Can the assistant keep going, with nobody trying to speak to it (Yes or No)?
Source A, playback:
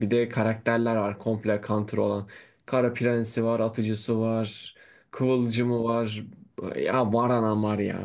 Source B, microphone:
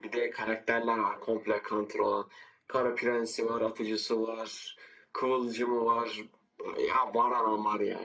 Yes